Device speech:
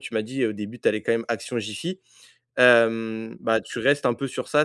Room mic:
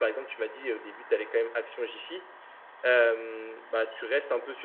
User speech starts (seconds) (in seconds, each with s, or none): none